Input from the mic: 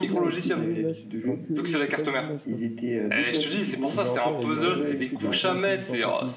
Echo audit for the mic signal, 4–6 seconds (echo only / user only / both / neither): both